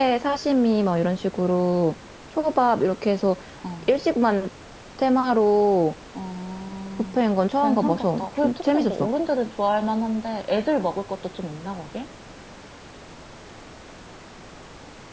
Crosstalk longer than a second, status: present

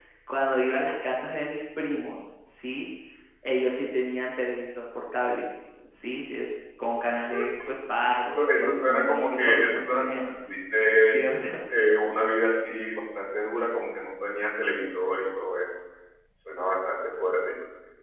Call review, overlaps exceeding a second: present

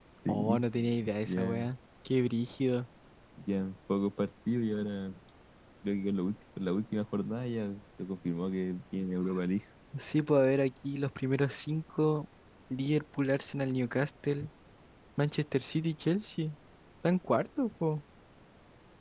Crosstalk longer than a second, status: none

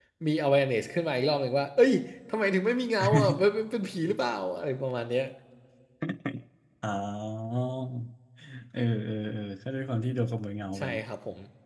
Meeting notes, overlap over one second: none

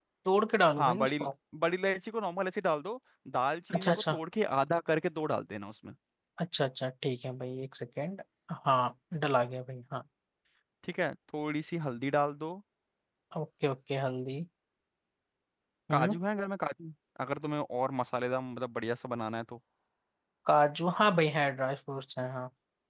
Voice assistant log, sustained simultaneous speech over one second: none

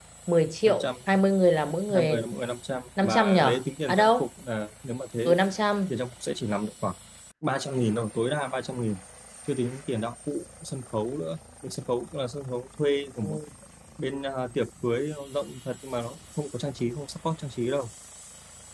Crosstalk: present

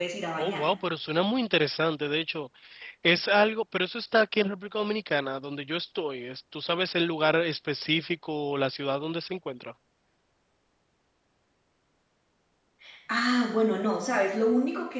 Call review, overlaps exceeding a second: none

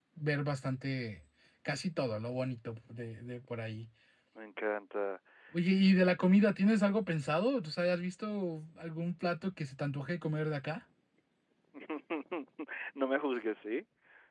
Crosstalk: none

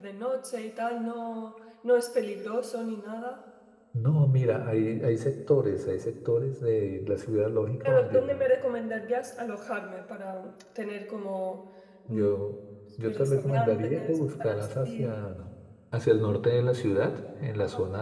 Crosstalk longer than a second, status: present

